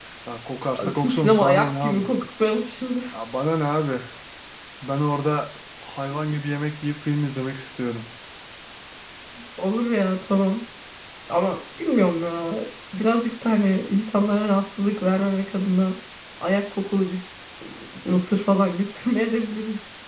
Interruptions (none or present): present